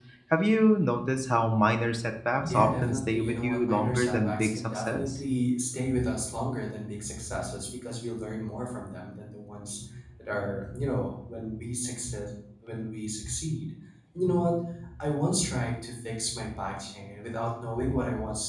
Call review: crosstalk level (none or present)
present